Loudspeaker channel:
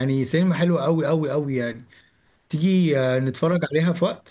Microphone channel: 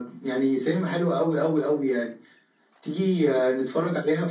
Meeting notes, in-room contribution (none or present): none